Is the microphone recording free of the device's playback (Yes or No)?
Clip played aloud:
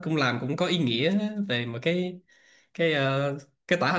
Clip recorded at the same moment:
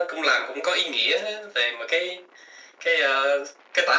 No